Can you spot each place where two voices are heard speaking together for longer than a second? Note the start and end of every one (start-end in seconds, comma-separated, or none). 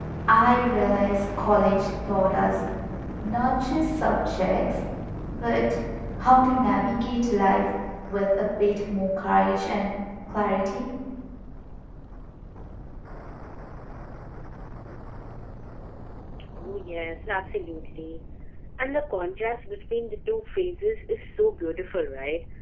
none